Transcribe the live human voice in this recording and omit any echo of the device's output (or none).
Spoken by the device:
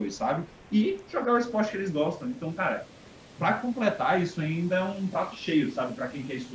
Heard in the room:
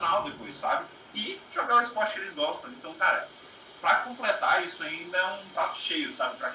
none